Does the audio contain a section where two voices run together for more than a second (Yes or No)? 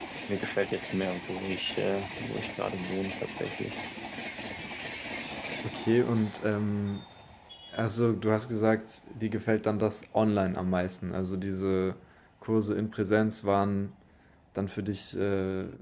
No